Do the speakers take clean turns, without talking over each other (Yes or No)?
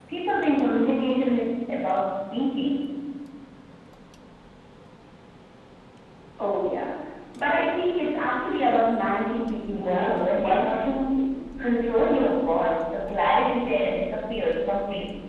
No